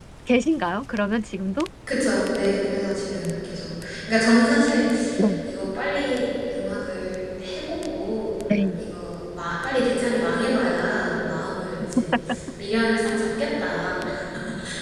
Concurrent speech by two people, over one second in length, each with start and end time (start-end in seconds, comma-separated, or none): none